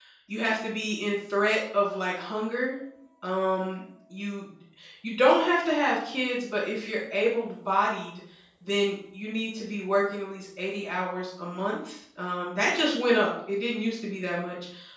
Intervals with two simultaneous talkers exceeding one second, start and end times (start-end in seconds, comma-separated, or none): none